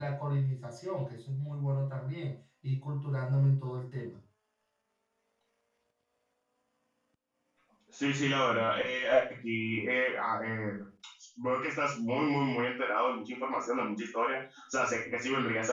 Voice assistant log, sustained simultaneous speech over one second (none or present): none